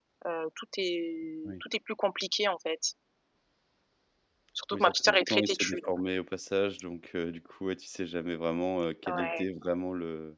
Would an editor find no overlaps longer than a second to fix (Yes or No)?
No